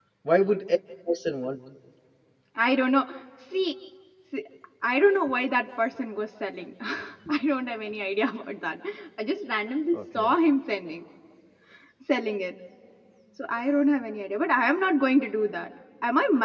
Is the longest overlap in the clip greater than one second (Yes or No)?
No